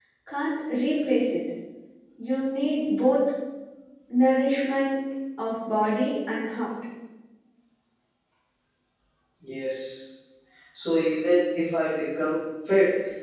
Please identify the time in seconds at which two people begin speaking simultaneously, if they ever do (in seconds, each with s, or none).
none